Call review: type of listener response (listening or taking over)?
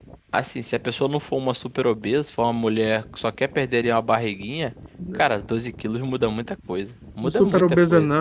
taking over